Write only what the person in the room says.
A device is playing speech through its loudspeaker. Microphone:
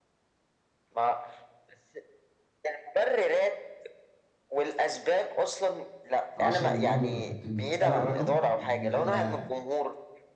10 مليون دولار انت متخيل الرقم يعني انت ده

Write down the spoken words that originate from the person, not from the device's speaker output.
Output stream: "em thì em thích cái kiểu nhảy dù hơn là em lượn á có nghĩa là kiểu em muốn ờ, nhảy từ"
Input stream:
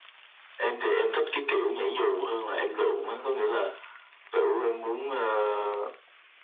none

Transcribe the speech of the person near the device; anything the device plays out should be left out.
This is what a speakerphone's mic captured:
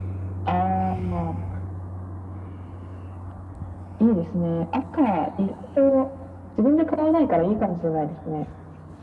none

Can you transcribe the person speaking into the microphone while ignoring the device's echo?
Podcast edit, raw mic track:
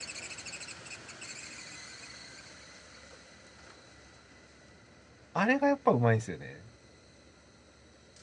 あれがやっぱうまいんですよね。

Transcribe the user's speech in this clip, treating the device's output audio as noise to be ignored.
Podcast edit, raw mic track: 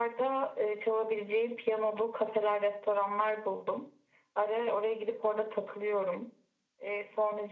none

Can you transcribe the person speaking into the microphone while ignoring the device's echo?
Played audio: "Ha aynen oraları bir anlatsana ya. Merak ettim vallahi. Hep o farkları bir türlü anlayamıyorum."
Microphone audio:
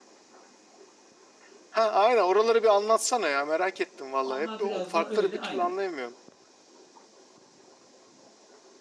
Onlar biraz da öyle aynen.

